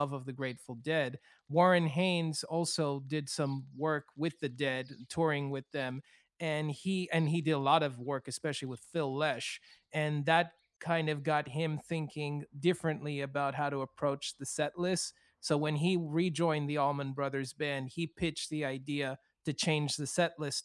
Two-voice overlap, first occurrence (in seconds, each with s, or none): none